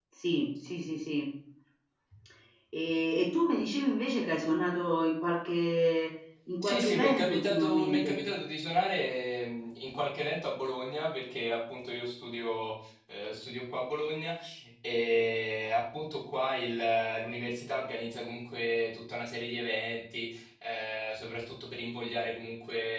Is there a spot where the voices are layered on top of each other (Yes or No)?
Yes